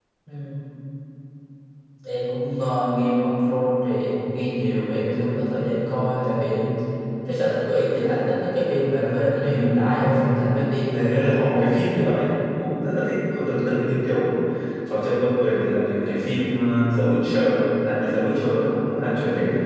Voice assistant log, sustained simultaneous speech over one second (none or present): present